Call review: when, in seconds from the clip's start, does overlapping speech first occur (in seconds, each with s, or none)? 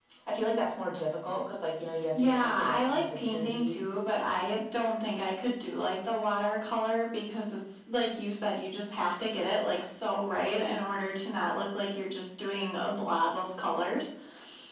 2.1 s